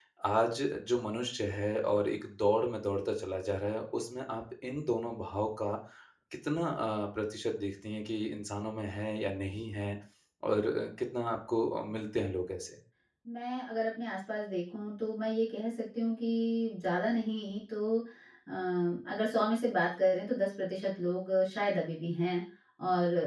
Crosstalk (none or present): none